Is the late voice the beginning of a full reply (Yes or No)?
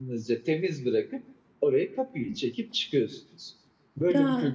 Yes